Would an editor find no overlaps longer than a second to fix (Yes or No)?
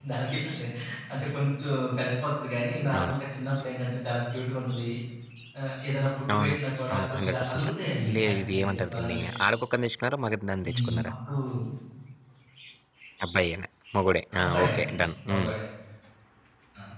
No